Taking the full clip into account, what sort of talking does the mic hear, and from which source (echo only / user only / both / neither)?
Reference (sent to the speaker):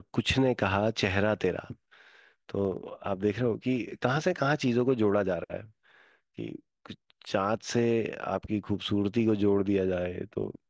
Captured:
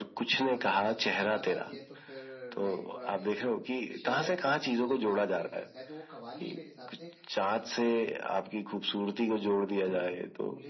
both